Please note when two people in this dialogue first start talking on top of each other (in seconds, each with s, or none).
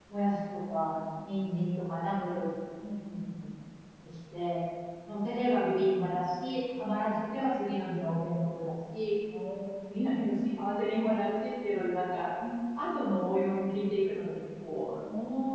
none